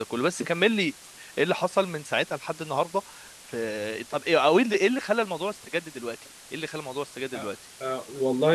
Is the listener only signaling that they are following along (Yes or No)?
No